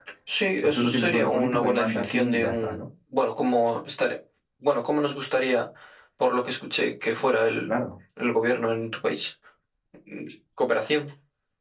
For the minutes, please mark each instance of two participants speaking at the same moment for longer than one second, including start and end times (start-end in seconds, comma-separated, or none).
0.6-2.9